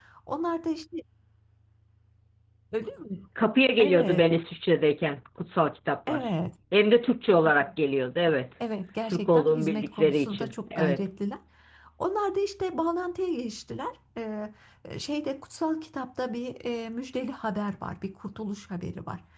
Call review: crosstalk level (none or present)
present